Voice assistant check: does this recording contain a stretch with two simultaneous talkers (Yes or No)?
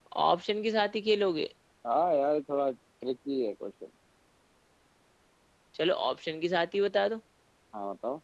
No